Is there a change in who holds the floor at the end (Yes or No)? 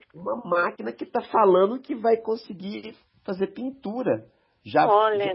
No